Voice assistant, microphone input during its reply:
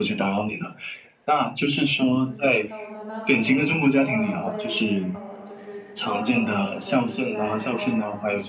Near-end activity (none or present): present